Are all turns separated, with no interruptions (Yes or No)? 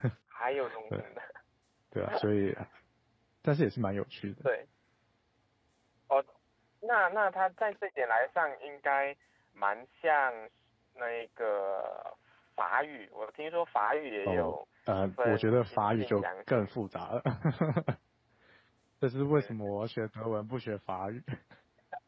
No